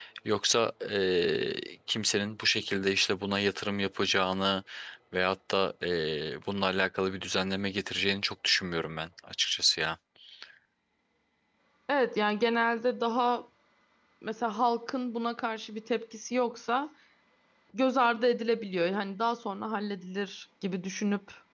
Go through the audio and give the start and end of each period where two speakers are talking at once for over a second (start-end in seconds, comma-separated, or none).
none